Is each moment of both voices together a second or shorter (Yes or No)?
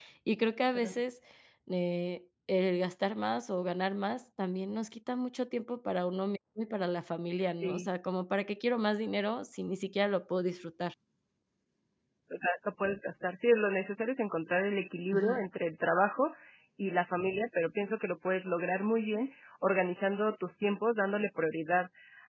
Yes